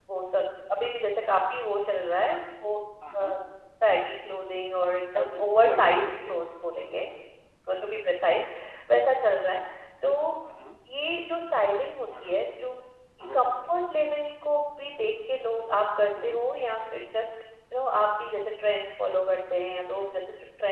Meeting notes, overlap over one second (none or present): present